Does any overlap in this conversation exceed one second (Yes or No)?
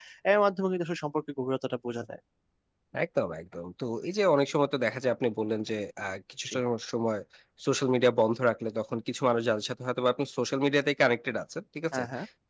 No